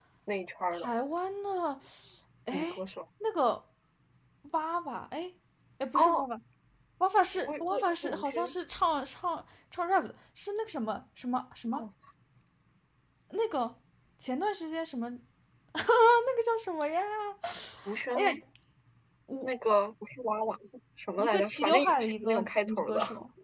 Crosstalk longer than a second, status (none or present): present